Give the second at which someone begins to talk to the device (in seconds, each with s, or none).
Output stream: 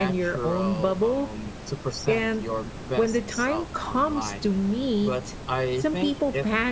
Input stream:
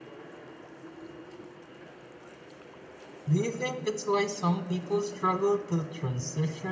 3.3 s